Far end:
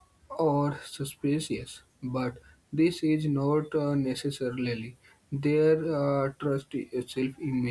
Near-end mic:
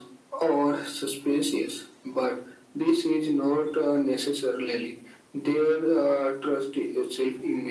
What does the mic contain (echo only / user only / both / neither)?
echo only